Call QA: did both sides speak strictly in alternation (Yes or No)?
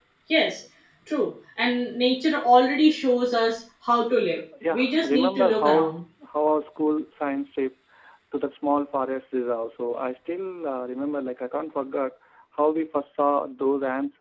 No